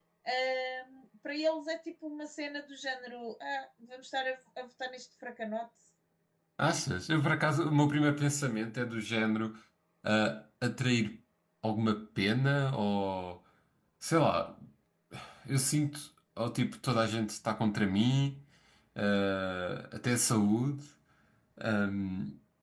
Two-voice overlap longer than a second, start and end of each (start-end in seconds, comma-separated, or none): none